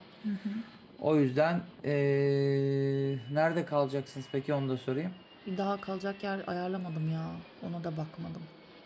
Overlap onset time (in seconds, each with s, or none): none